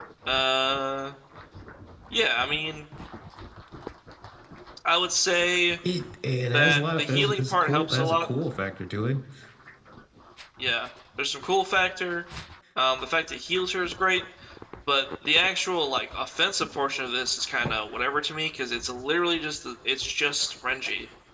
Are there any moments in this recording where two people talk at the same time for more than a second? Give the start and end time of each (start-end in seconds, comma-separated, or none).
6.5-8.3